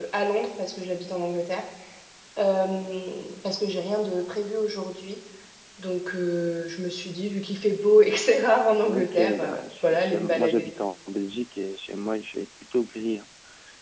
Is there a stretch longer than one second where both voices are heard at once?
Yes, from 8.8 s

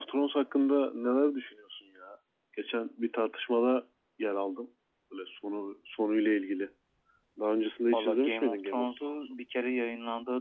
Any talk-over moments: Yes, from 7.9 s

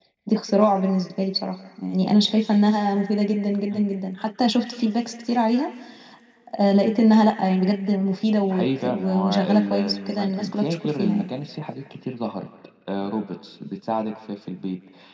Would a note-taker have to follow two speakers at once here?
Yes, from 8.5 s

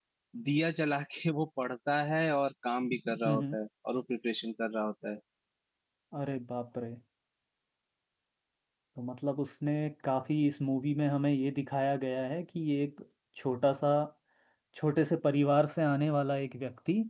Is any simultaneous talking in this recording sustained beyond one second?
No

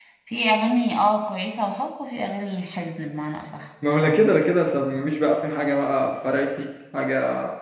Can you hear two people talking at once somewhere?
No

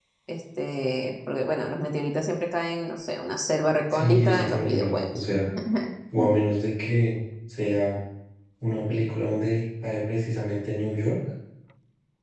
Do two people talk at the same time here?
Yes, from 3.9 s

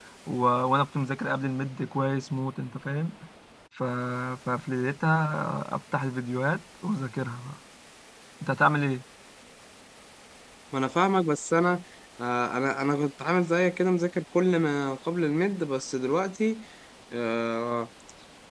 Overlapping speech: No

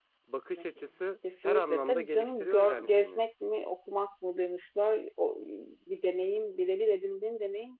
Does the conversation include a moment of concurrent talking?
Yes, from 1.4 s

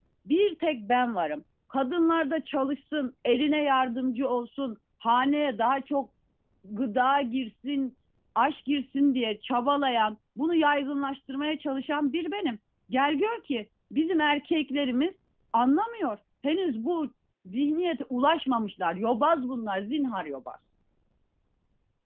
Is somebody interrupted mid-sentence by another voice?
No

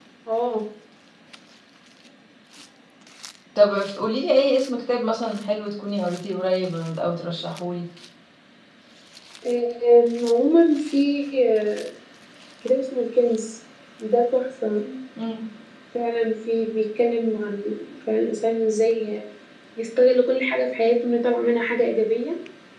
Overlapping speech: No

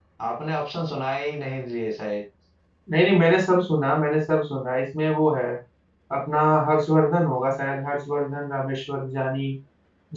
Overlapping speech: No

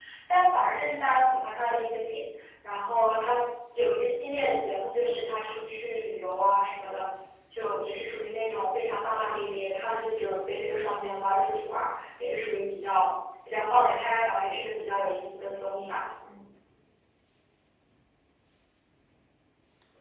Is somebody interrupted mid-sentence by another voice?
No

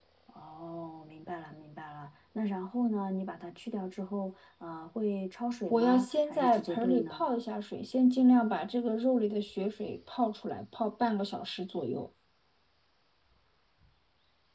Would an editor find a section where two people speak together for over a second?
Yes, from 5.7 s

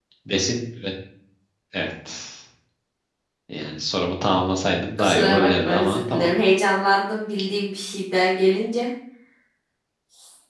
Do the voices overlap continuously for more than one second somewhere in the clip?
Yes, from 5.0 s

